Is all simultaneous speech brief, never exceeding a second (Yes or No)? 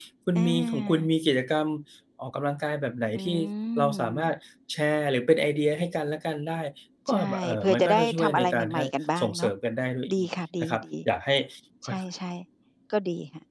No